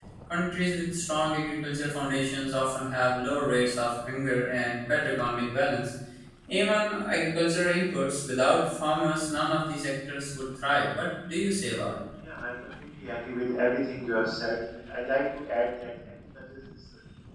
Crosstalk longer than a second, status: none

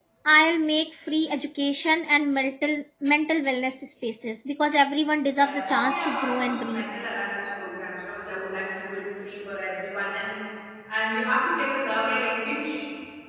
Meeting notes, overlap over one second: present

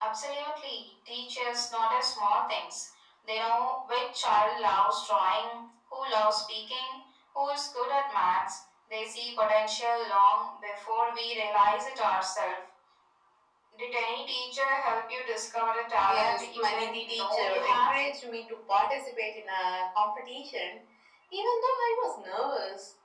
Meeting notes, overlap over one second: present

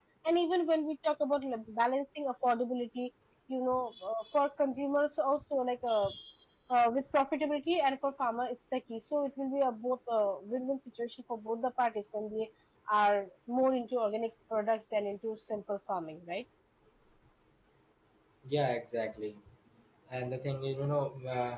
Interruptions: none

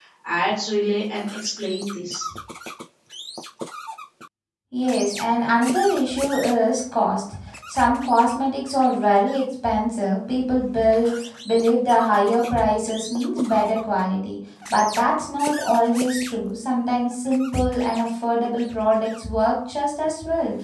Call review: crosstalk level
none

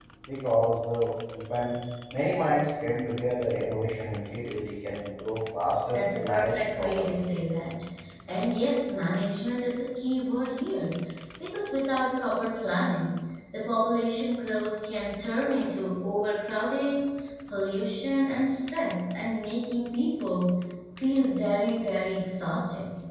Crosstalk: present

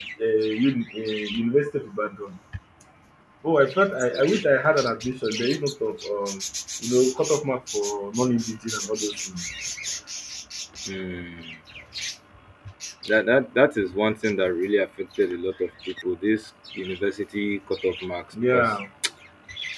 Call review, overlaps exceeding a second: none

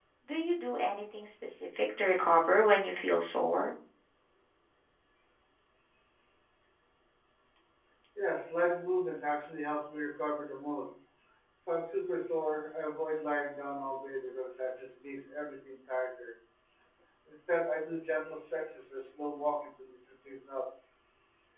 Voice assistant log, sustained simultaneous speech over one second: none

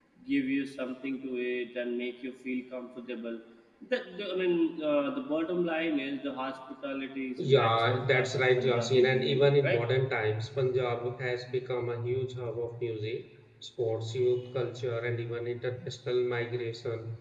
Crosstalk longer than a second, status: present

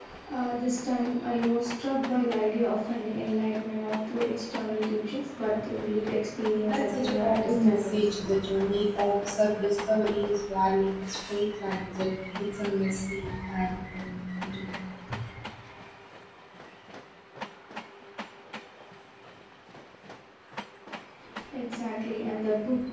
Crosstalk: present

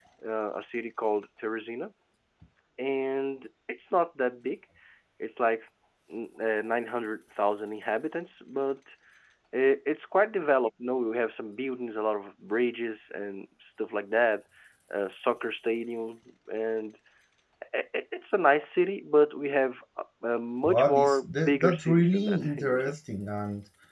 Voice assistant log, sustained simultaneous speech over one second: present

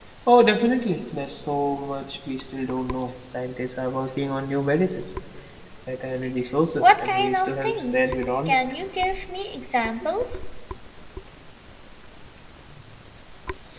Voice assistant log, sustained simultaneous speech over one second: present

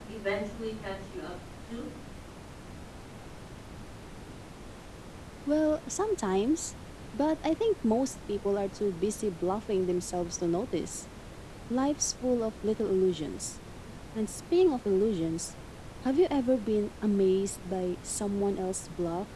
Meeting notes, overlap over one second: none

